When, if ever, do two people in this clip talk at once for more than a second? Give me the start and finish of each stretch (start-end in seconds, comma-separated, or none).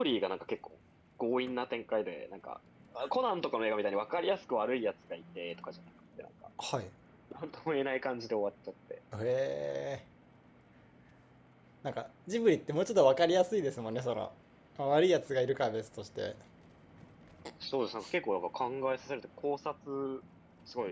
none